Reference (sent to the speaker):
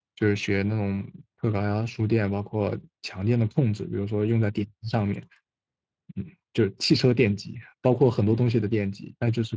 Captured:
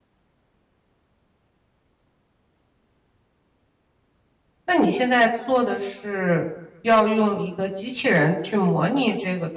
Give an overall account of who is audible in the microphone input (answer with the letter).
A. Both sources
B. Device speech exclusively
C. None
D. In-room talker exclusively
D